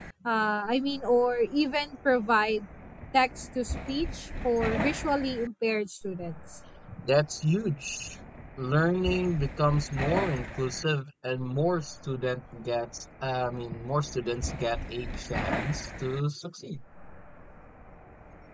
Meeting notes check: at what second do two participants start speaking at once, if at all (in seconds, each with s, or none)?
none